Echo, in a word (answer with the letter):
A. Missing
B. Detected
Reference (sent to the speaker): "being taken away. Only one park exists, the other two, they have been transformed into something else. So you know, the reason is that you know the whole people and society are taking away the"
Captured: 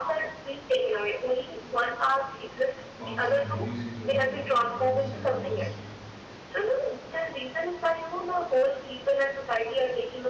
B